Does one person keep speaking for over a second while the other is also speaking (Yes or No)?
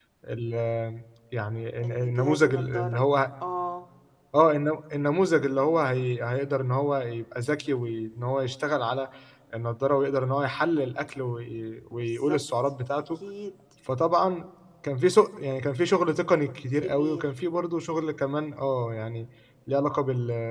Yes